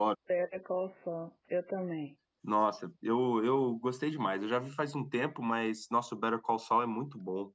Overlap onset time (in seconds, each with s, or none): none